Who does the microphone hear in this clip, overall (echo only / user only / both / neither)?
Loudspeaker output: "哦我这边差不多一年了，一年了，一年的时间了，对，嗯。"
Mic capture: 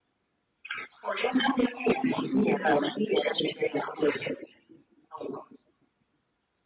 both